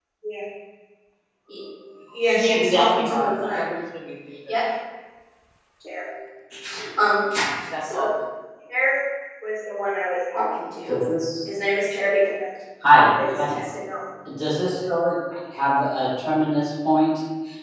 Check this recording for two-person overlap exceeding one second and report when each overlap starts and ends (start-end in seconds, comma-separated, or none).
2.4-3.7